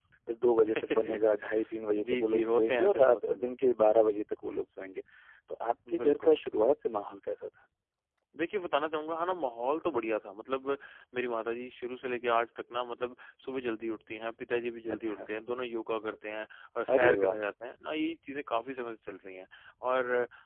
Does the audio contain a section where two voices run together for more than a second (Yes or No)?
Yes